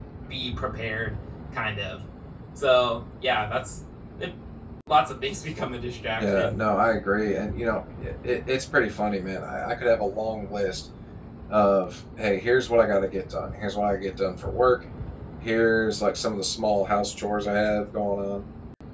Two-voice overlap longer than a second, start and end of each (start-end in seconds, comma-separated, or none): none